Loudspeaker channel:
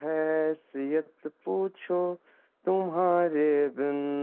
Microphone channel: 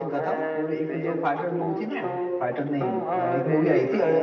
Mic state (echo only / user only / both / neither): both